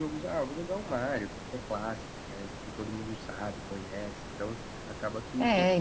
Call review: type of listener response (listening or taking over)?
taking over